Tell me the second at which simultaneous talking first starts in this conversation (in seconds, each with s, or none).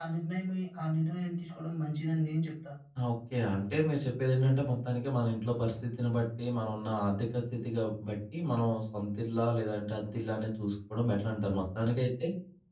none